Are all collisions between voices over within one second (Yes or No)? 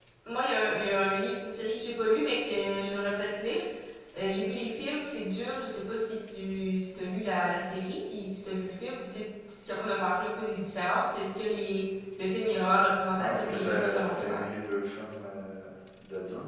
No